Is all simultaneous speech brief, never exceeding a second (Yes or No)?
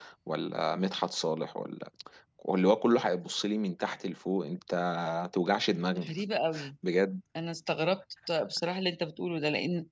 Yes